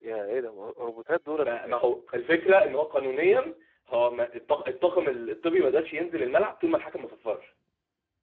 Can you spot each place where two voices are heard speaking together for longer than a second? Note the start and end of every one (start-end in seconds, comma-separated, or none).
none